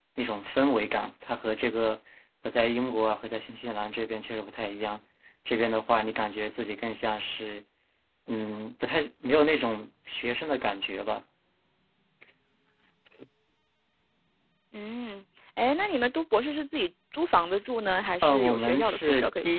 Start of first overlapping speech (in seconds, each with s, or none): 18.2 s